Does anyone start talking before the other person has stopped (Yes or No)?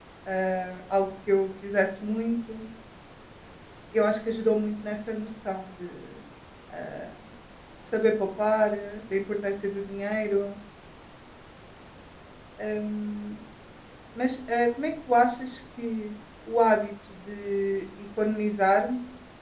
No